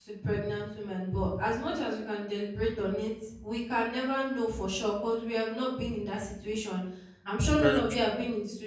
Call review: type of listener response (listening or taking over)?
listening